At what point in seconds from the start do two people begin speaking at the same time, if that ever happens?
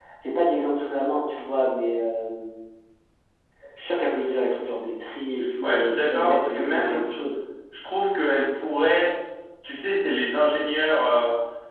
6 s

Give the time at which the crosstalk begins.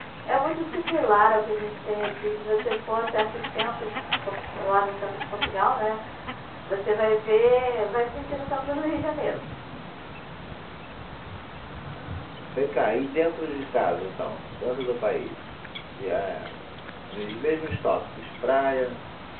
none

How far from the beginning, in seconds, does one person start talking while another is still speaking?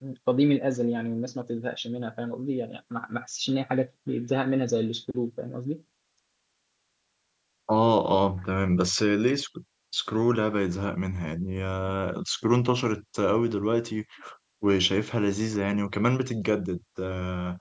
none

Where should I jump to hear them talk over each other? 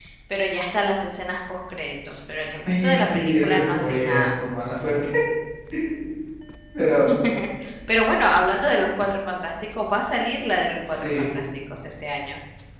3 s

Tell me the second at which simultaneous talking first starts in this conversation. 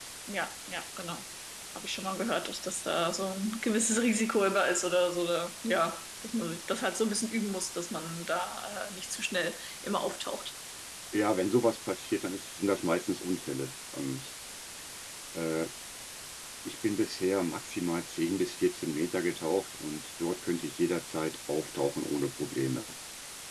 none

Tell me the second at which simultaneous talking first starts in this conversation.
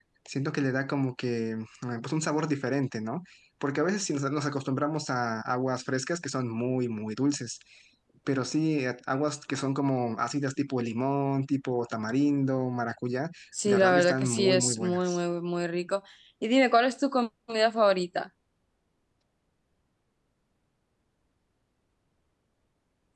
14 s

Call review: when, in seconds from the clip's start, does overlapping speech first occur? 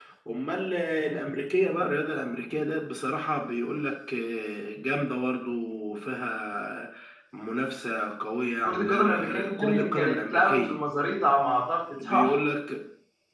9 s

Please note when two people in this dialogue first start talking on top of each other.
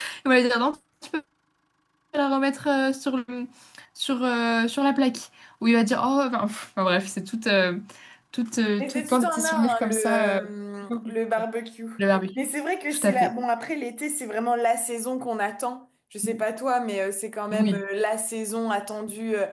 9 s

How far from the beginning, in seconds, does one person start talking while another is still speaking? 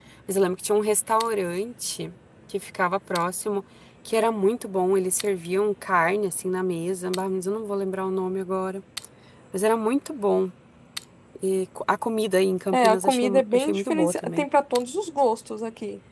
13 s

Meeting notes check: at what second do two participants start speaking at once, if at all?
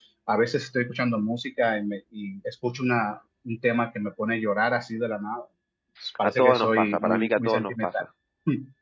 6 s

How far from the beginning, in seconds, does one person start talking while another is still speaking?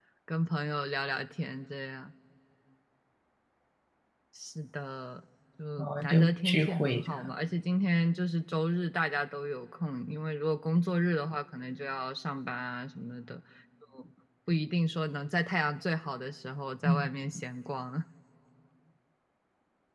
6 s

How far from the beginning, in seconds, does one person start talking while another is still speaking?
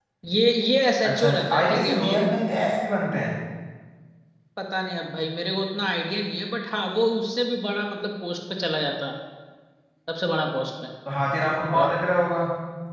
1 s

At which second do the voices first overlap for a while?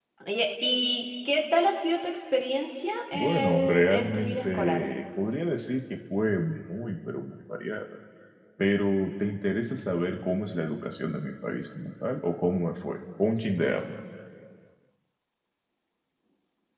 3 s

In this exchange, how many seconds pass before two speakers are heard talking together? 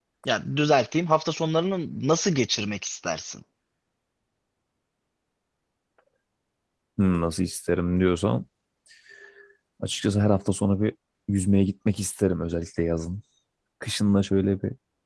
none

